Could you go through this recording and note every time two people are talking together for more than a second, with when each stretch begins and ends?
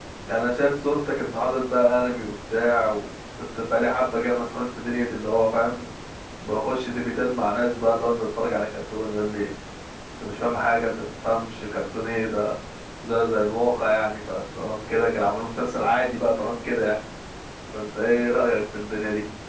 none

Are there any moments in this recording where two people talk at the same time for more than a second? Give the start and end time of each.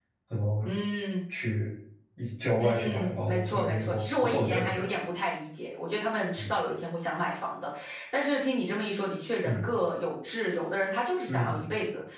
2.6-4.8

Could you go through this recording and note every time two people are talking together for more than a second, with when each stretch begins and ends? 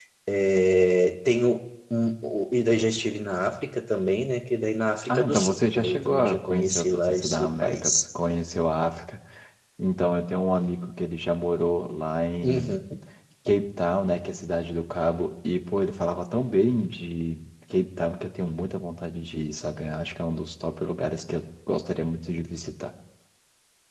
5.1-8.0

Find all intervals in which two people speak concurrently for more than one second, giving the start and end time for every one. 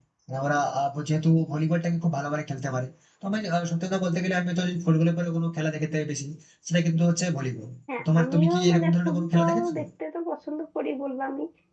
8.2-9.7

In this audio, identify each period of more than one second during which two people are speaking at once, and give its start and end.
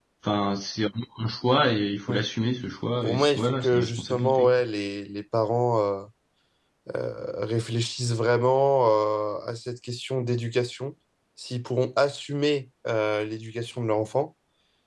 3.0-4.6

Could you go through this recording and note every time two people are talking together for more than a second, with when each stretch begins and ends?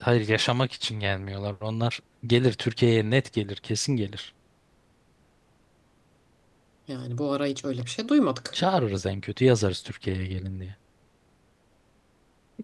none

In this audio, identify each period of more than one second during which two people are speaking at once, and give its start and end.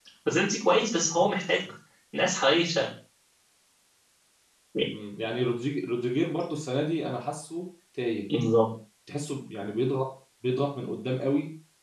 none

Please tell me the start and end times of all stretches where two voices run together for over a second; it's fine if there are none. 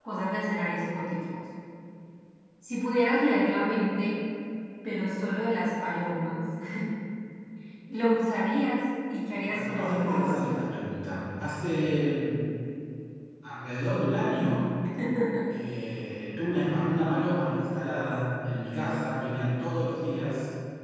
9.5-10.7

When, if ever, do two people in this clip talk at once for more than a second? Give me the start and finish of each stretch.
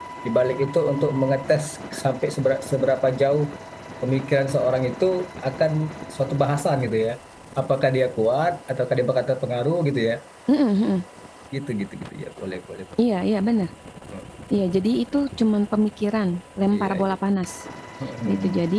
none

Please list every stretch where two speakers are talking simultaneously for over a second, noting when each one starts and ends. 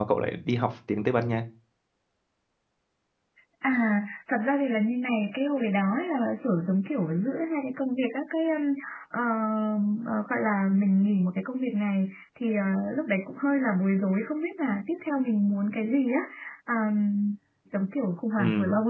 none

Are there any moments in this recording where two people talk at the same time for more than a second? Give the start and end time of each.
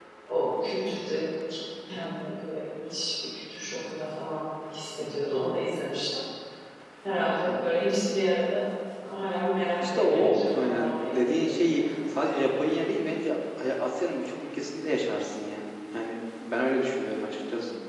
9.9-12.2

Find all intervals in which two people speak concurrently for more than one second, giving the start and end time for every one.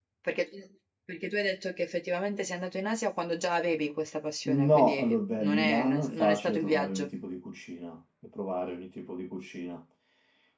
4.5-7.1

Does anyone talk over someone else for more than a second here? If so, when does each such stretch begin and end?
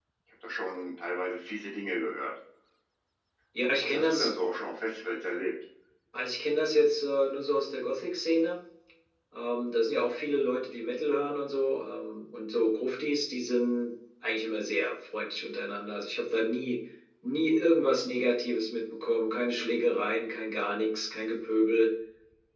none

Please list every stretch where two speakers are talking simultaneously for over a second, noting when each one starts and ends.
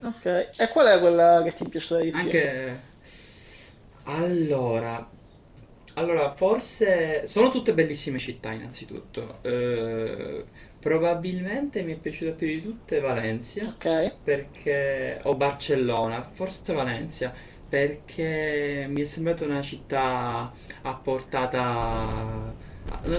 none

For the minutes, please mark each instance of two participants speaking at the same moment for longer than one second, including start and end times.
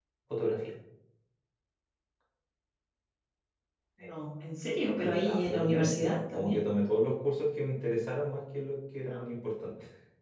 5.0-6.6

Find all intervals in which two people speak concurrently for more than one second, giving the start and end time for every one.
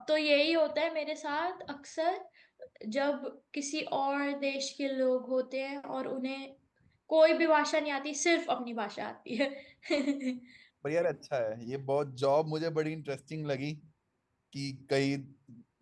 none

